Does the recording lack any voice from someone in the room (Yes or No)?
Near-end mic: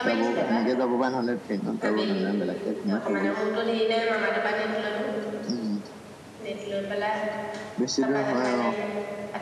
No